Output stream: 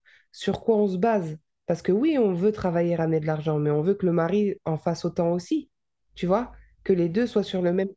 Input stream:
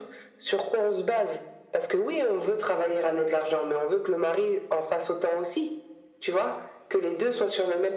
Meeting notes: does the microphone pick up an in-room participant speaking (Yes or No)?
No